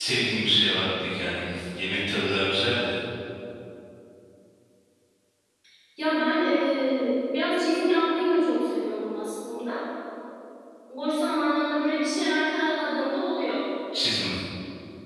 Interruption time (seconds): none

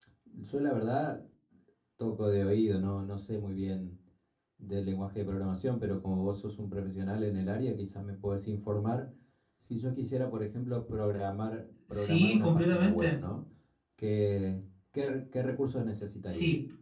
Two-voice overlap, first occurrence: 12 s

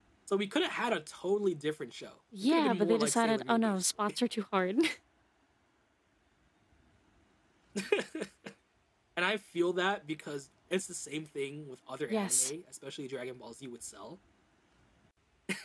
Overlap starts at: 2 s

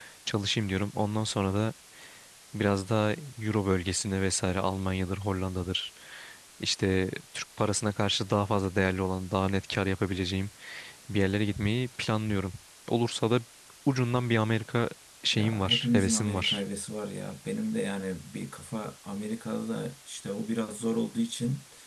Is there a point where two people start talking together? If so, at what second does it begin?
15 s

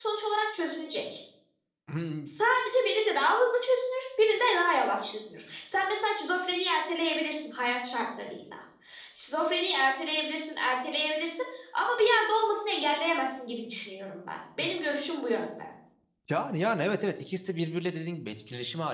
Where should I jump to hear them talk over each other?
none

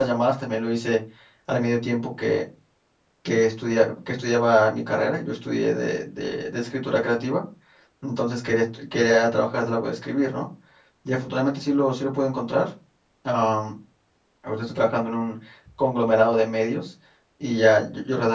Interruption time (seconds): none

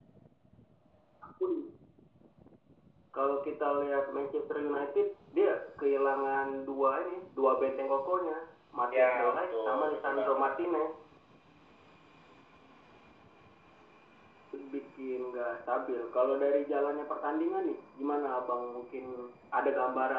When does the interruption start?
9 s

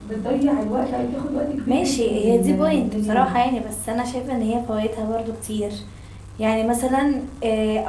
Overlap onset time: 2 s

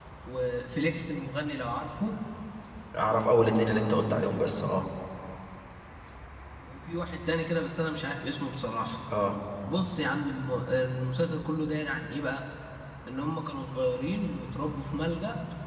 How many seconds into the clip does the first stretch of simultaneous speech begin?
none

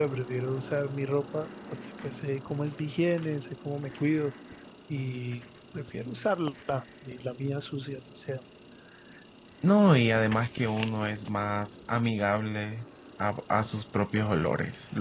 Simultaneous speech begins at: none

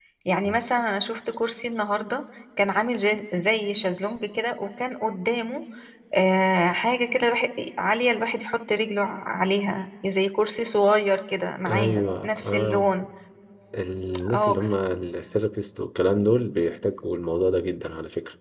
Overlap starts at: 12 s

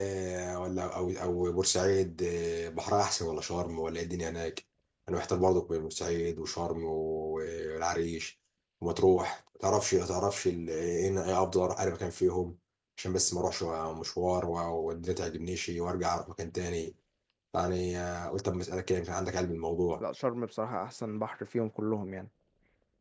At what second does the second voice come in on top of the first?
none

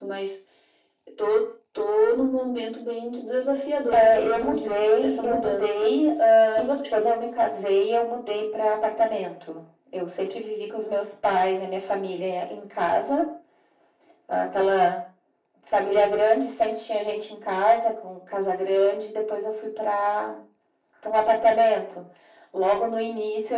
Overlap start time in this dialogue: 4 s

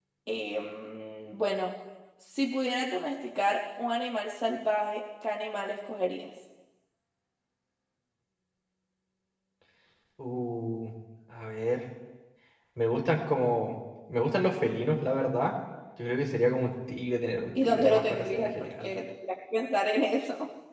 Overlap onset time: 18 s

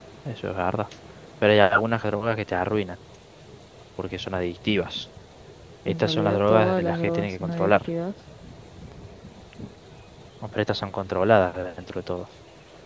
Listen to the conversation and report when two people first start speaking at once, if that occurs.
6 s

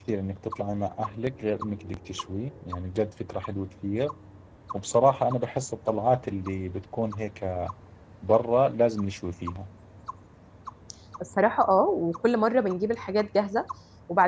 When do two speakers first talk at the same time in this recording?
none

